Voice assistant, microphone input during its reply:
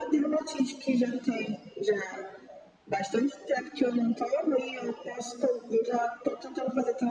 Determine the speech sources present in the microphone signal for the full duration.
echo only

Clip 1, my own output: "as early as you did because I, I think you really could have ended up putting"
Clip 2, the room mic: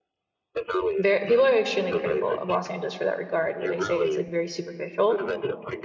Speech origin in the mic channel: both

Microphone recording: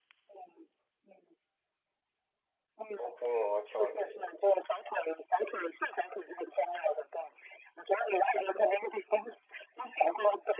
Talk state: both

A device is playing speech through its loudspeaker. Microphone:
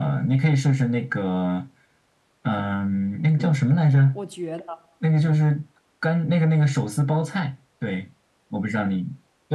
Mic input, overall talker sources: both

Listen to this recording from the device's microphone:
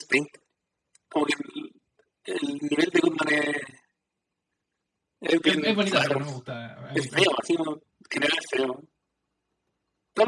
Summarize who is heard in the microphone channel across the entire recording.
both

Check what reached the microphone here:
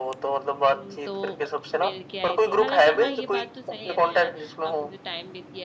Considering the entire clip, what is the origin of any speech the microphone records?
both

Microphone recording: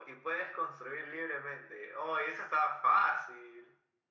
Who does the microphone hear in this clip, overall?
echo only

